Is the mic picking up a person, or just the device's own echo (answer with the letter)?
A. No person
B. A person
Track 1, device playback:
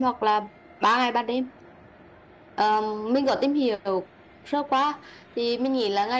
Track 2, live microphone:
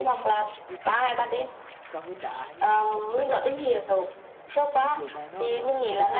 B